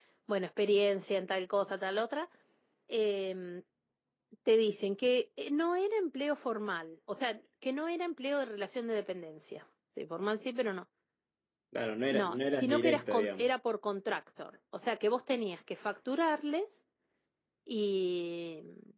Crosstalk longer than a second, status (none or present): present